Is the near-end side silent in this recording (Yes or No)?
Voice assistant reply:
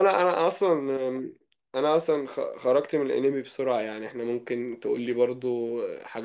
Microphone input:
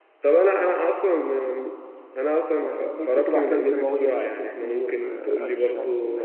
No